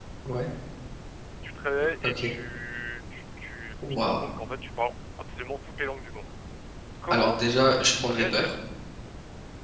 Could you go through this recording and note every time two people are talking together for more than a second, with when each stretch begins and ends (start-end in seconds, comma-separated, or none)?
7.1-8.5